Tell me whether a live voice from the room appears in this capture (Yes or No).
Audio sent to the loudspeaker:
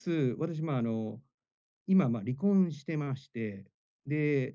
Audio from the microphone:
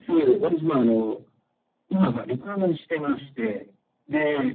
No